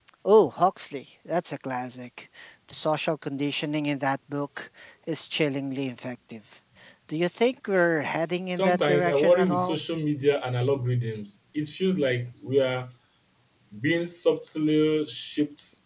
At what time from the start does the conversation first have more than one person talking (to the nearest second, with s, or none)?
9 s